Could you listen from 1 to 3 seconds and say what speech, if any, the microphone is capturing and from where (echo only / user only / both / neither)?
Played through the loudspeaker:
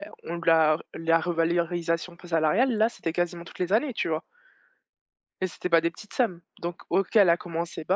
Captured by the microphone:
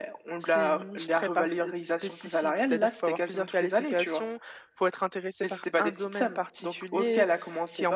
both